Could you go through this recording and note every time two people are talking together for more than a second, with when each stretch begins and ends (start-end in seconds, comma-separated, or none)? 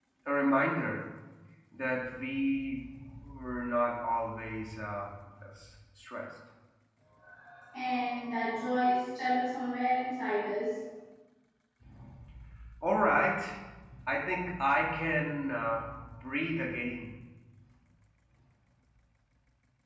none